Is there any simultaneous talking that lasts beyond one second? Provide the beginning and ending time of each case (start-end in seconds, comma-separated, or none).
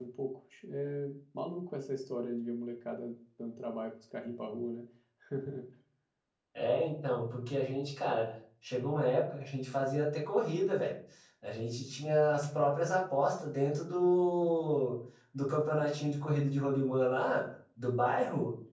none